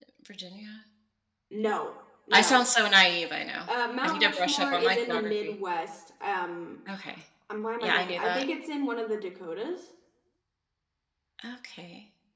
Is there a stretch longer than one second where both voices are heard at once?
Yes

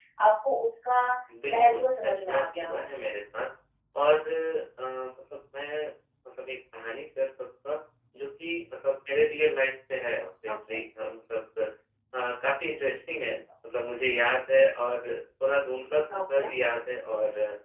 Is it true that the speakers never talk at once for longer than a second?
No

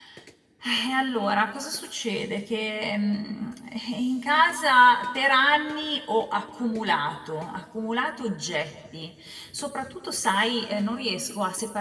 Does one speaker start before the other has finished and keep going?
No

